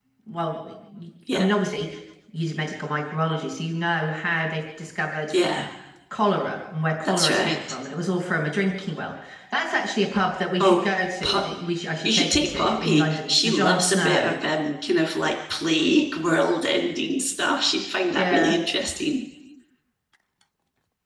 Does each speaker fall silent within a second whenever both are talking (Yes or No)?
No